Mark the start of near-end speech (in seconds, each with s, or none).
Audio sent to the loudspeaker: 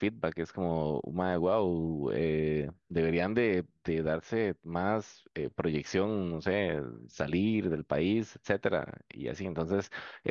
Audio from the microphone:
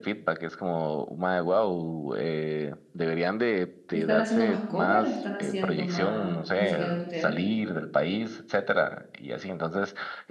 3.9 s